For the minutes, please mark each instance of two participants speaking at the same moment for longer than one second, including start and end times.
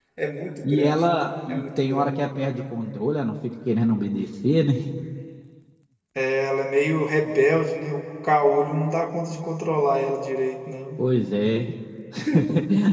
0.7-2.1

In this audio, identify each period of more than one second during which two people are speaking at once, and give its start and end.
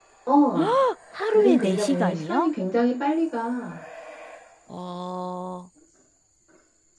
1.3-2.5

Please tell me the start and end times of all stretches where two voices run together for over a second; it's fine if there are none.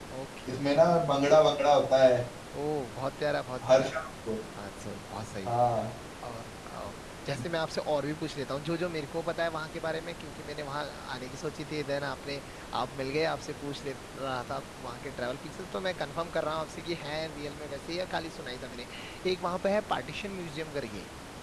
none

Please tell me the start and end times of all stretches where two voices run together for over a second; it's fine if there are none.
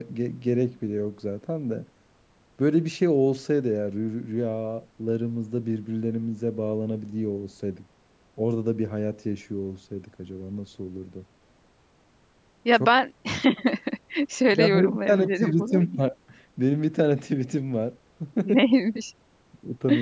14.6-15.8

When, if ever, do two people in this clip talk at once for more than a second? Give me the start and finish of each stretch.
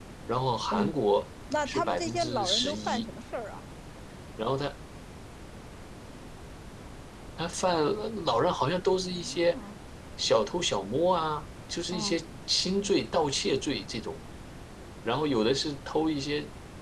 1.6-3.1

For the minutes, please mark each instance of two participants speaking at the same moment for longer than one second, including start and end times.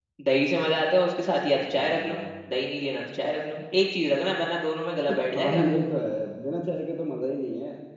none

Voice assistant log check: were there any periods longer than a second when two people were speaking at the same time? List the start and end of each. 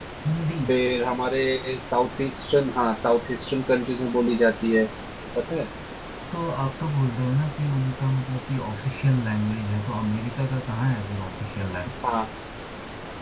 none

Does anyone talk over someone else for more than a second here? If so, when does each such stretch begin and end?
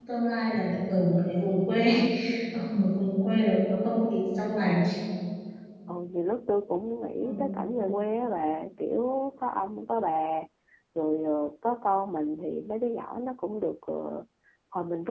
none

